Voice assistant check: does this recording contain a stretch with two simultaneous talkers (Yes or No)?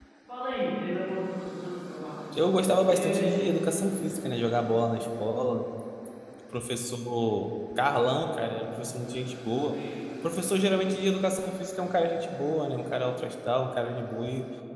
Yes